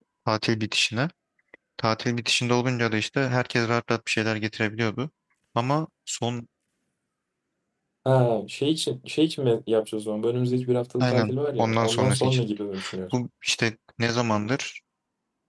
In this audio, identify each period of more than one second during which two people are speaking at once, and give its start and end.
11.0-12.4

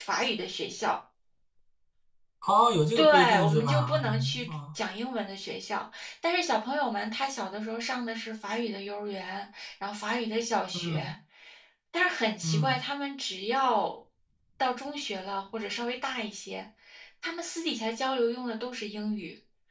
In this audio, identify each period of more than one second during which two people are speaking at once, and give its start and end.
3.0-4.6

